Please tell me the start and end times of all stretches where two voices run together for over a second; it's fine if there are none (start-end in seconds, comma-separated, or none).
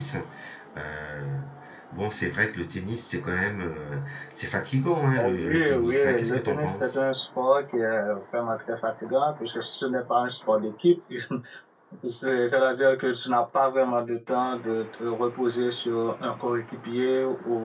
5.2-6.8